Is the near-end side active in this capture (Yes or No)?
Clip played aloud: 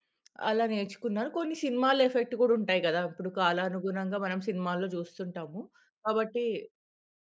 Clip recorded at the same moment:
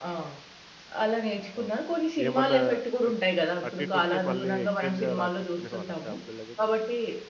Yes